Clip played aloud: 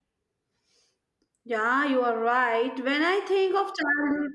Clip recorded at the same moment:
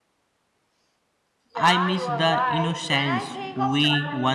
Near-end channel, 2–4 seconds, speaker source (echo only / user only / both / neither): both